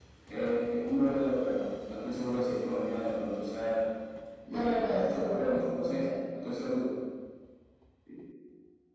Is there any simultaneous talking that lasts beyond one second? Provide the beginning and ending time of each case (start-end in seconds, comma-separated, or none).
4.5-6.0